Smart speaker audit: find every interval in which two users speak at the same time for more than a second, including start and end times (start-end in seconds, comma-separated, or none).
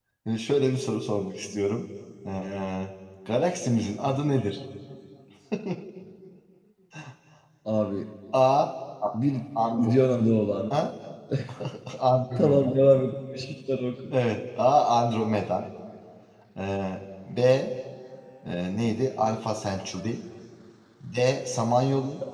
none